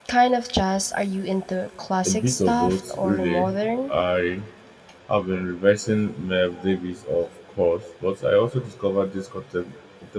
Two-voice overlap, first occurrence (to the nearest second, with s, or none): 2 s